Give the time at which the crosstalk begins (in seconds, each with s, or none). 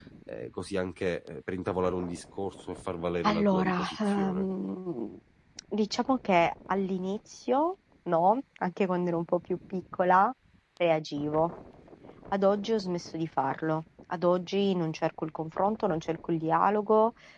3.2 s